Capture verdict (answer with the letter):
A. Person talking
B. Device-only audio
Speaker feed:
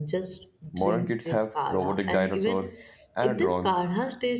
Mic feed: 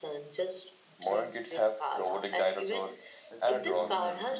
A